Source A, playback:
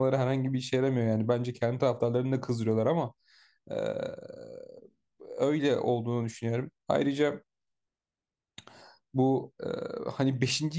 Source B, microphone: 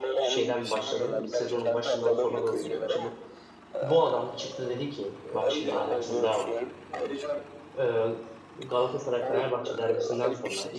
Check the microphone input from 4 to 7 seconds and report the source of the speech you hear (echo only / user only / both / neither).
both